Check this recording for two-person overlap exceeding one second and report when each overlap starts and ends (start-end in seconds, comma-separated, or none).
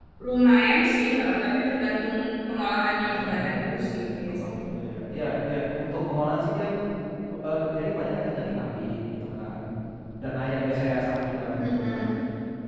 3.0-4.6